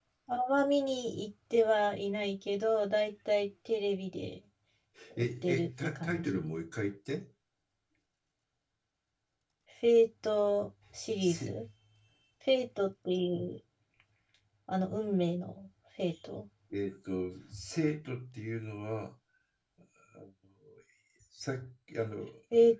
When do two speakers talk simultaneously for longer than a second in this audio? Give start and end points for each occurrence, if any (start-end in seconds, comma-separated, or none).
5.2-6.4